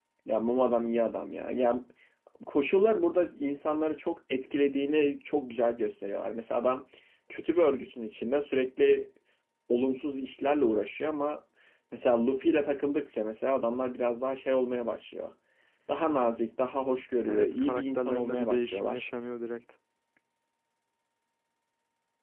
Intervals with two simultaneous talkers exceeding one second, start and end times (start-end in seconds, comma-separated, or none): 17.3-19.0